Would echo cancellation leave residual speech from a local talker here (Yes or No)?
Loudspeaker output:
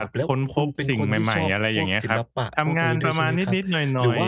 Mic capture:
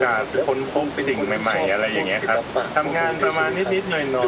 No